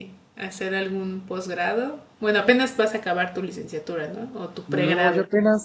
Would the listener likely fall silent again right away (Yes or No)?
No